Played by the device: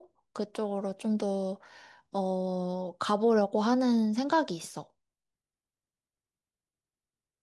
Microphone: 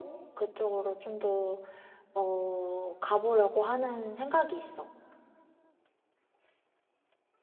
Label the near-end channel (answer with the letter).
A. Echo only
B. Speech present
A